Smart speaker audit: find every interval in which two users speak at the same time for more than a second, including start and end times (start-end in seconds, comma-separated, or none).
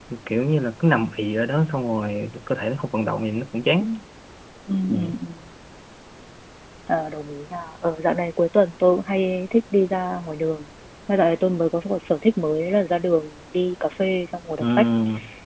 none